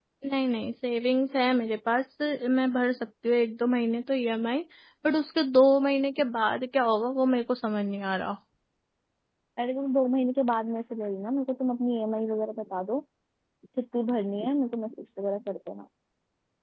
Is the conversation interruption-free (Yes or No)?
Yes